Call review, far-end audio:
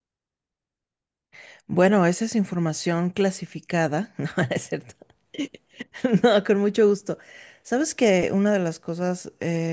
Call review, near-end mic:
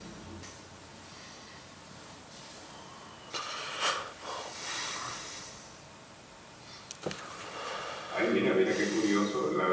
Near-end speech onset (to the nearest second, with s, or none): 8 s